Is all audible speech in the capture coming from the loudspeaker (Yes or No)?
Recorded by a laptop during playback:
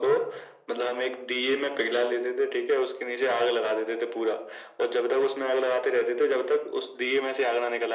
Yes